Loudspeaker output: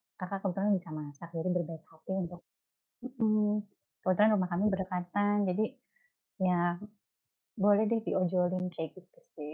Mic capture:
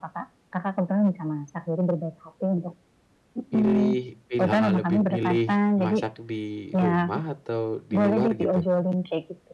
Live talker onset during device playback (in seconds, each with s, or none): 3.5 s